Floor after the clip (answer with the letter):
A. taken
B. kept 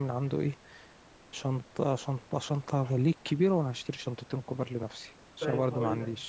A